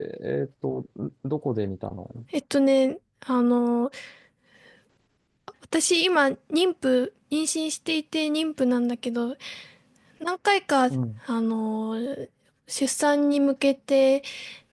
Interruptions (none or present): none